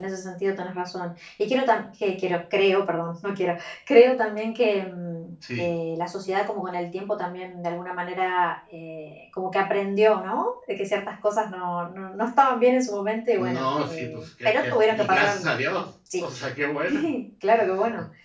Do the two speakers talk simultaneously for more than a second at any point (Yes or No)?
Yes